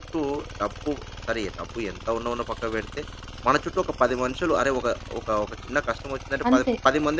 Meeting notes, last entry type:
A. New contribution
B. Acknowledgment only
B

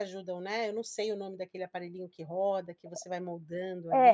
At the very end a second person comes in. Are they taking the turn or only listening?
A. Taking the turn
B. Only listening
A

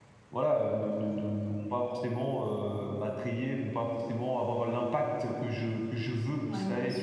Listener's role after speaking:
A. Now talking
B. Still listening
A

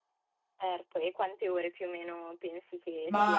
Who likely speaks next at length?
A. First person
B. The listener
B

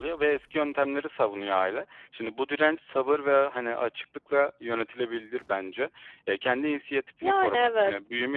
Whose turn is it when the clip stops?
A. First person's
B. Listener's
A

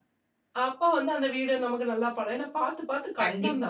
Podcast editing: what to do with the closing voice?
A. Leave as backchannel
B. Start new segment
A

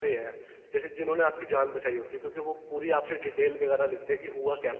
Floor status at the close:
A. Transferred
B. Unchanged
A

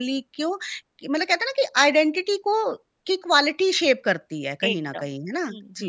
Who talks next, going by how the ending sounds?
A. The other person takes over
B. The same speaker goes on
A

